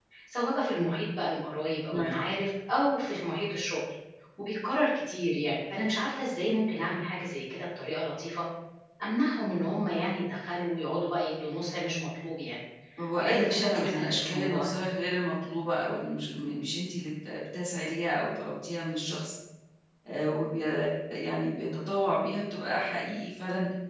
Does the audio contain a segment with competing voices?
Yes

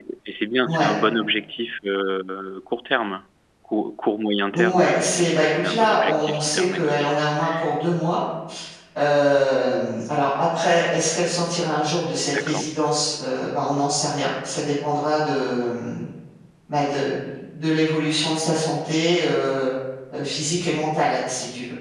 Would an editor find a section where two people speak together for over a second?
Yes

